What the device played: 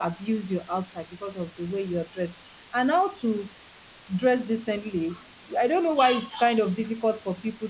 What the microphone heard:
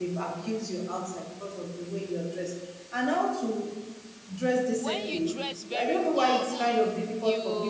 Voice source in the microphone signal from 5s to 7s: both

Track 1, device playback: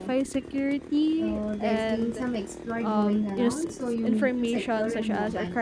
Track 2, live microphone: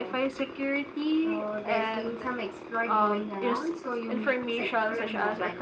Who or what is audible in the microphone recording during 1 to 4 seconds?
echo only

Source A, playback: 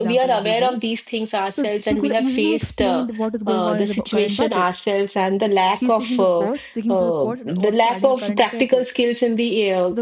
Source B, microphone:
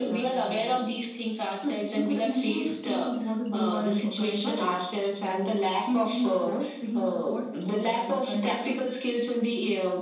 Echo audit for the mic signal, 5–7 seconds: echo only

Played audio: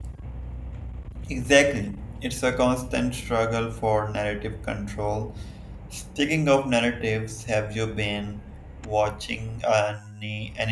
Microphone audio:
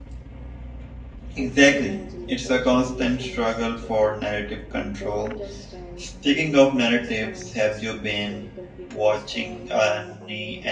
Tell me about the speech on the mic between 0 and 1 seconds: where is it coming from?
neither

